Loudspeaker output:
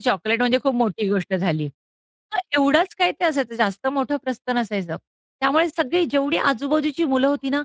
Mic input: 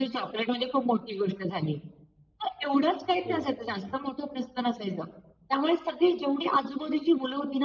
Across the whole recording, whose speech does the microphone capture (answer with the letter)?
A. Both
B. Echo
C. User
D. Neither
A